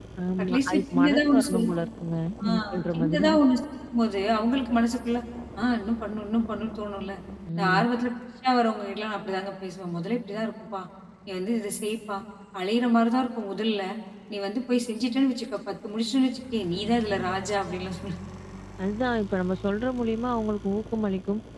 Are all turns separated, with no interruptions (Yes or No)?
No